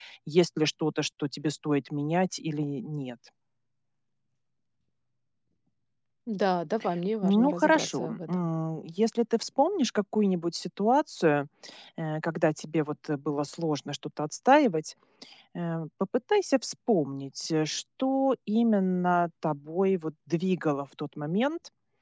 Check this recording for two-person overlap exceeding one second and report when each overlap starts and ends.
7.2-8.4

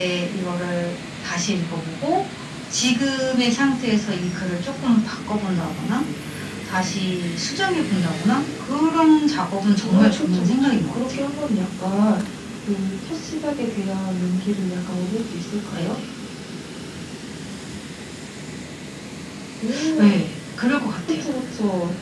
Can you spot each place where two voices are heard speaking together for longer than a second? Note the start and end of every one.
9.8-11.2

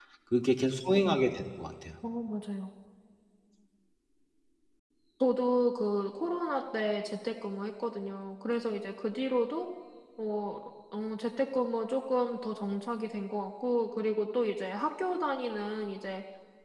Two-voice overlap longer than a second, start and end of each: none

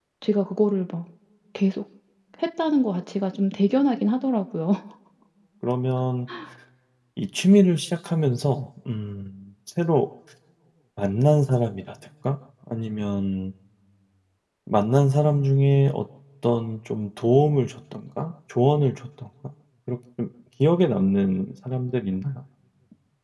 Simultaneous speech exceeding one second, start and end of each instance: none

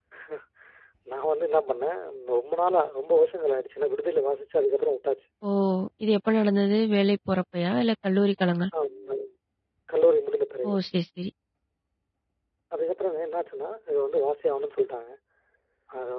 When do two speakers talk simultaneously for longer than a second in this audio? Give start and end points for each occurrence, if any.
none

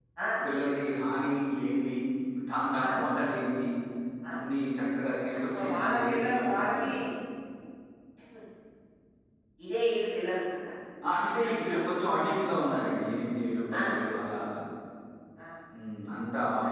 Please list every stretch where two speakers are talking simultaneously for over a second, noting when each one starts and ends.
5.5-6.9

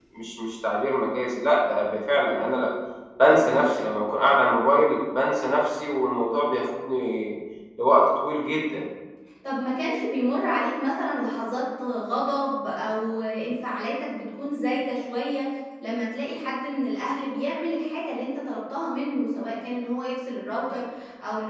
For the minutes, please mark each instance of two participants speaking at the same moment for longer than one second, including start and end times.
none

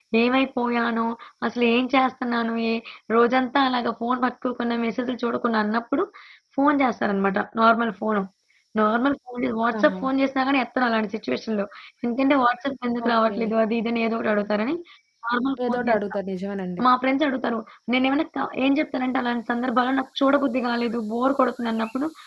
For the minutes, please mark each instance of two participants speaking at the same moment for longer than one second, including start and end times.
none

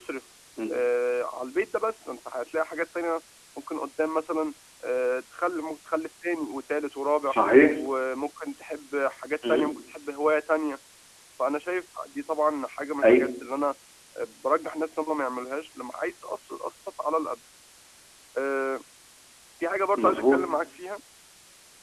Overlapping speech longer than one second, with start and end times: none

